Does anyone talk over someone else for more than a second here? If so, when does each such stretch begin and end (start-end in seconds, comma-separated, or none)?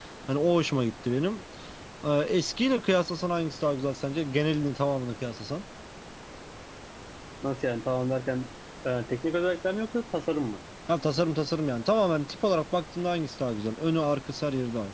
none